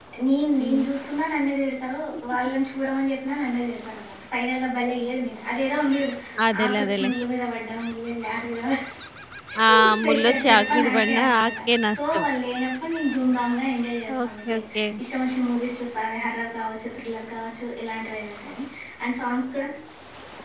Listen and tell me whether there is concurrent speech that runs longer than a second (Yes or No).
Yes